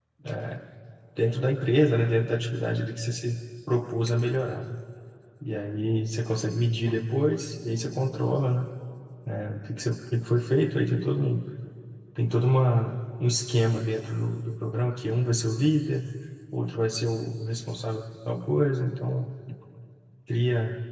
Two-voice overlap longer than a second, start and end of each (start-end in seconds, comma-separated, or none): none